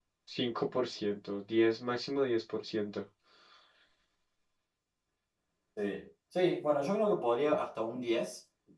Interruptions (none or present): none